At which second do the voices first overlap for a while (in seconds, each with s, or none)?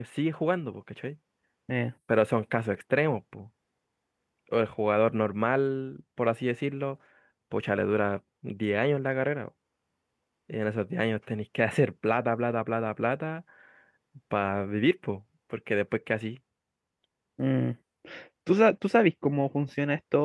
none